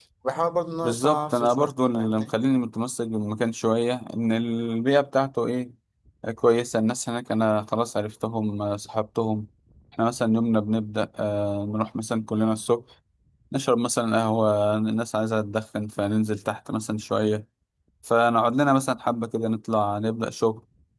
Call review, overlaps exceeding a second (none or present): present